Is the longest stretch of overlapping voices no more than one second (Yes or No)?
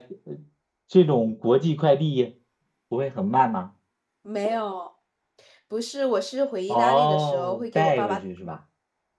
No